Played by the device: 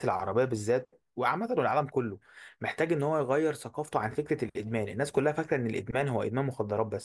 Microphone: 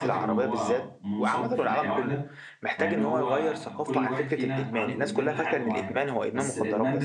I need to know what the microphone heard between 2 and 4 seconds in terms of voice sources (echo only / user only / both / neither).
both